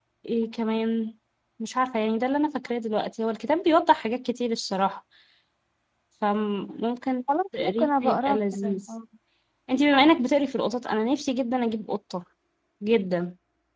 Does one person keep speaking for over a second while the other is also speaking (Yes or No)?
Yes